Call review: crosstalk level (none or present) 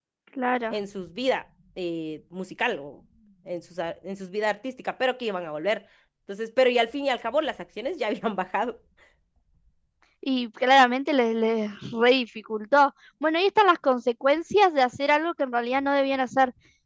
none